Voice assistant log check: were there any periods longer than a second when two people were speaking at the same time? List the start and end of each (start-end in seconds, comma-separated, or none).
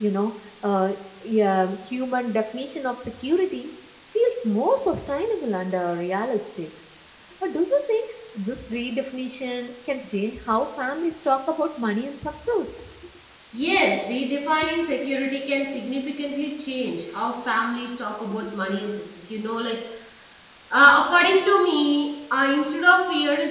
none